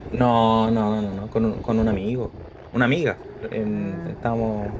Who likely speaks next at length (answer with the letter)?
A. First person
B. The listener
A